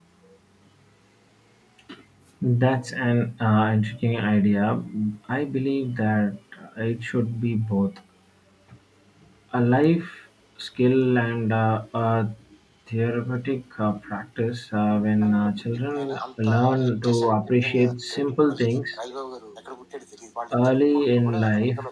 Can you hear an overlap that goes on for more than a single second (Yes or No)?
Yes